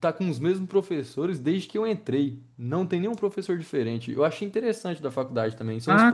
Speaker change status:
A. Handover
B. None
A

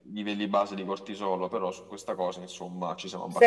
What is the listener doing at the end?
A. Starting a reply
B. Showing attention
A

